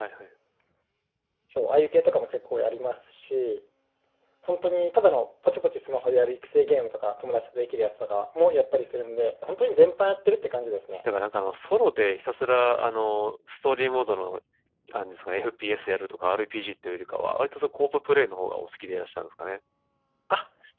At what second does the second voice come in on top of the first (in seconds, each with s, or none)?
none